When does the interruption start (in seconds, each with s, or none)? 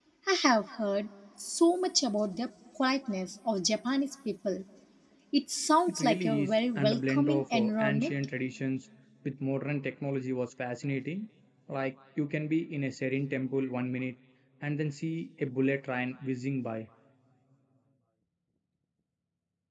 5.9 s